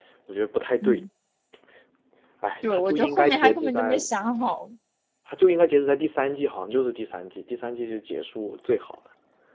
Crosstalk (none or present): present